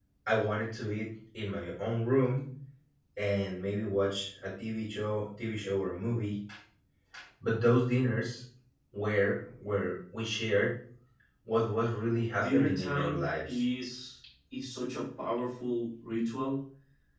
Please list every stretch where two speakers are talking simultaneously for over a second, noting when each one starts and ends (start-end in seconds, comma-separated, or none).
12.3-13.6